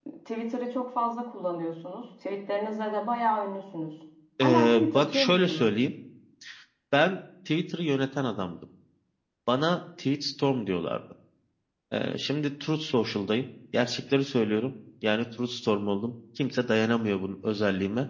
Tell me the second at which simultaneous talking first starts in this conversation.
4.4 s

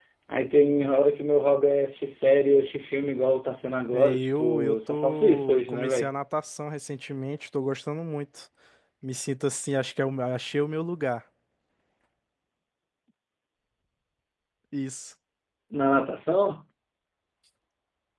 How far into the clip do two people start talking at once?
3.9 s

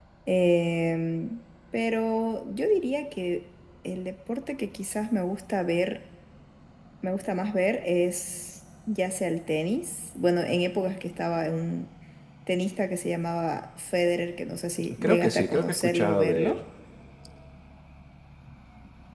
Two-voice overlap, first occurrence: 14.9 s

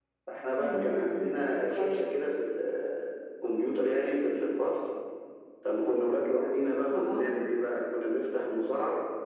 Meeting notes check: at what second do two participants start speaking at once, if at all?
0.6 s

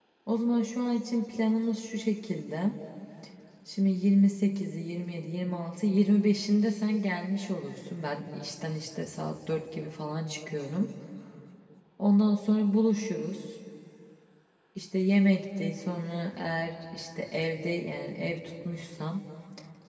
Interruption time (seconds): none

